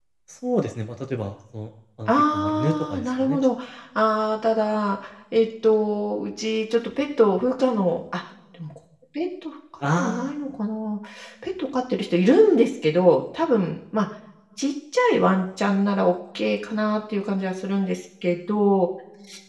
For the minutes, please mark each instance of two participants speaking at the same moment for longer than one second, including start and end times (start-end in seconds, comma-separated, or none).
2.1-3.5